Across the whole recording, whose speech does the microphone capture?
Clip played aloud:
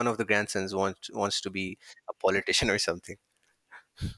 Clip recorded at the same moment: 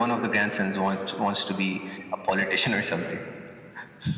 echo only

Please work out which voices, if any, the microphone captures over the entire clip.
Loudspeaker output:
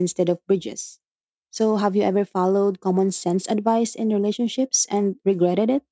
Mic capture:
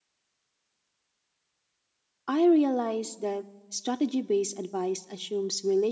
user only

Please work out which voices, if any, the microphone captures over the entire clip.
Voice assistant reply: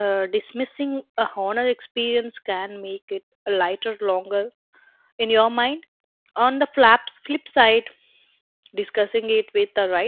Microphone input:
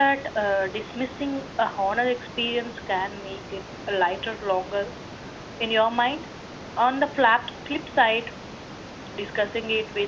echo only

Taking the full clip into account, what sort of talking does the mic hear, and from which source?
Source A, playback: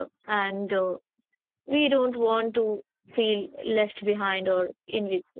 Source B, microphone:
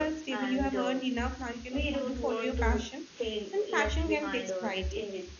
both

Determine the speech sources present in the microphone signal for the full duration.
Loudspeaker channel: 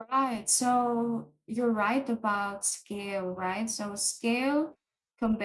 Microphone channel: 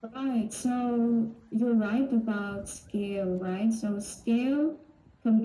echo only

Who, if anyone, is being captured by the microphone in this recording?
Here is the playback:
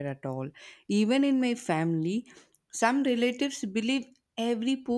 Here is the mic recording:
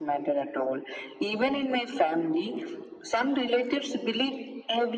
echo only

